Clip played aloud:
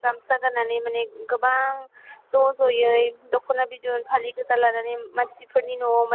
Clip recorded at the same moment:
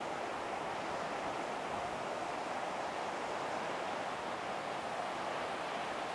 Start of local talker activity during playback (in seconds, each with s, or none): none